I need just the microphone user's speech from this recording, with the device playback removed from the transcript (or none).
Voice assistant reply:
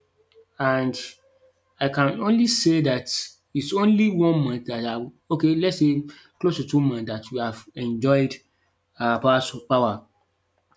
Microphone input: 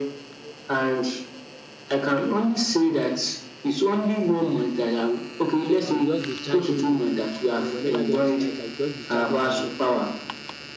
So I will just be charging the you know whenever there is light I will just be charging the